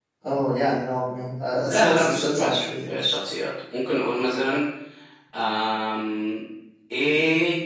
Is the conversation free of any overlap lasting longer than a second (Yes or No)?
No